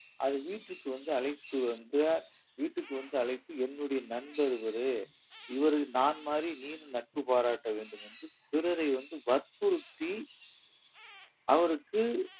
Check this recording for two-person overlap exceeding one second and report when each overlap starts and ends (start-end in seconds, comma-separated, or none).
none